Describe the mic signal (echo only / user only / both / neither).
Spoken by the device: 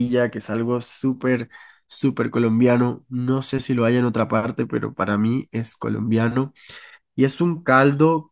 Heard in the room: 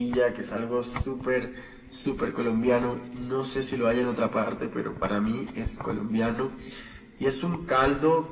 echo only